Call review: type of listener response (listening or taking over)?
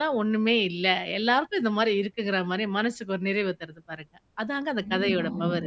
taking over